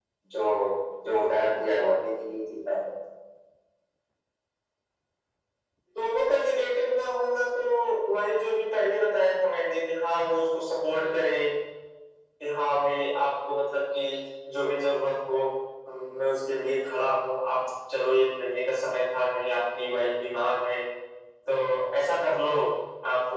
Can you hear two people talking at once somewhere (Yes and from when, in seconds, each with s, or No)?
No